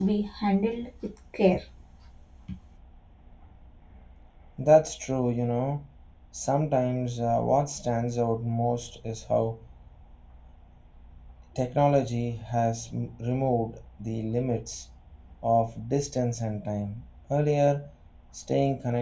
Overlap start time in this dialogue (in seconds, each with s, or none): none